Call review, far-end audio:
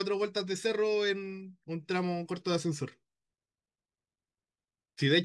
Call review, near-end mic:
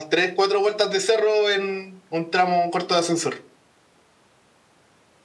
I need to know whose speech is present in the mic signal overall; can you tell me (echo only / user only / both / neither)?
echo only